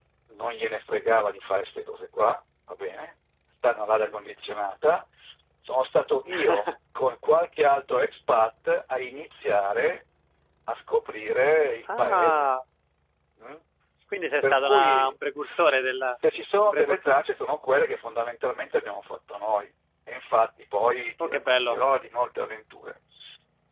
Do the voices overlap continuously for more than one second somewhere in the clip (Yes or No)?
Yes